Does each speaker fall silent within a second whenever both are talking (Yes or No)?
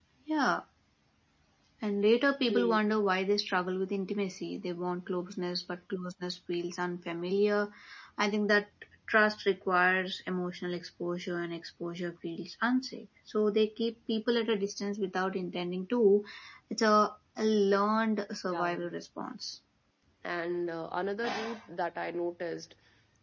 Yes